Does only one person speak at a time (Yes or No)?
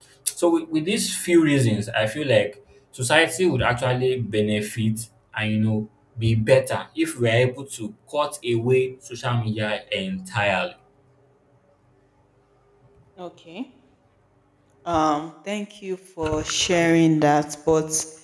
Yes